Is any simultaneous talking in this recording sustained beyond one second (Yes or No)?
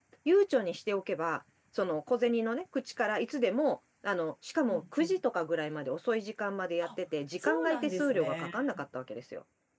Yes